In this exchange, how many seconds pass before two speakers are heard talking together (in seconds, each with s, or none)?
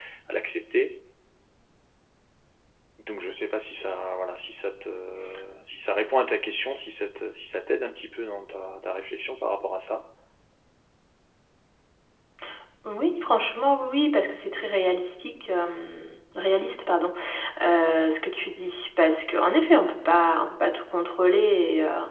none